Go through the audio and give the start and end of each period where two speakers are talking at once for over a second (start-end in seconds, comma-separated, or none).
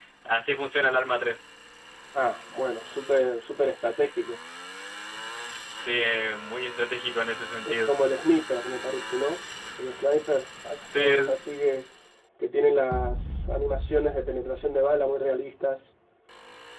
none